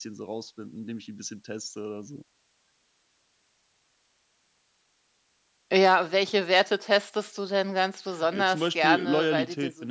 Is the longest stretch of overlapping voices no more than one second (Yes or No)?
No